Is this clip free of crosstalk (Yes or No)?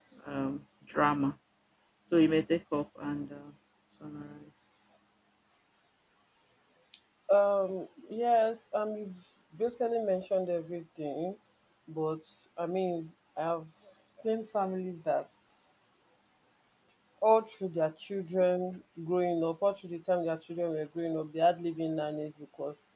Yes